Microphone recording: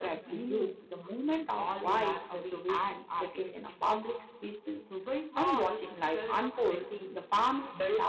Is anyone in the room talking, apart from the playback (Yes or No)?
Yes